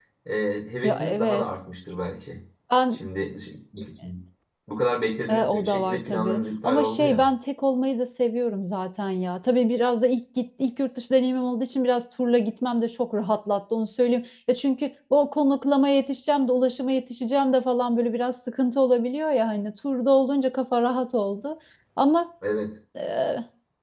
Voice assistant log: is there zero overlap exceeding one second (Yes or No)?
No